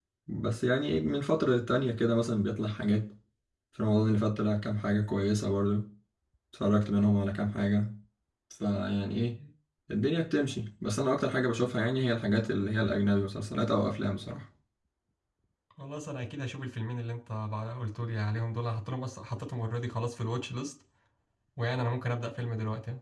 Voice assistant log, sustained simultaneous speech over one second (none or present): none